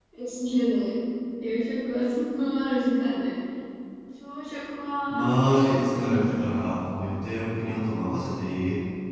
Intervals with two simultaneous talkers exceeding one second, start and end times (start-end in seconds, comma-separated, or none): 5.1-6.5